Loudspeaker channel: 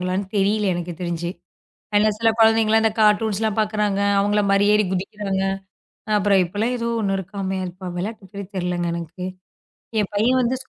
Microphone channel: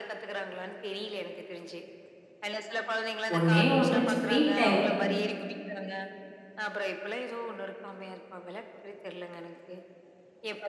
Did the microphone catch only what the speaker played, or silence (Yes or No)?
No